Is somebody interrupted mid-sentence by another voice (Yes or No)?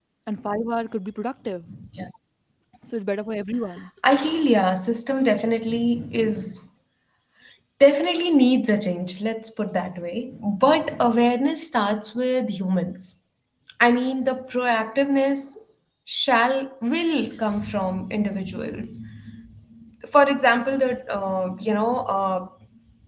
No